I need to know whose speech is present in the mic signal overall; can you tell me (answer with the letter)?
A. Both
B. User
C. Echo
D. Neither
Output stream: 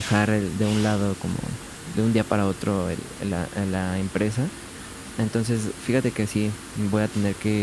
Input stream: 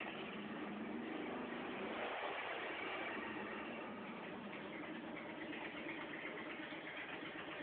D